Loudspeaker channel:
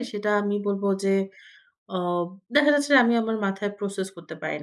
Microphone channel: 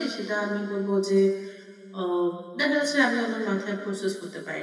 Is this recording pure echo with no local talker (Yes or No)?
Yes